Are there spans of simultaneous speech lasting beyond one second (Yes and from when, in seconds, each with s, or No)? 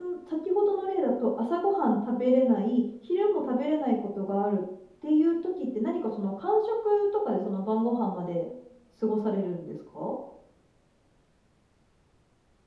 No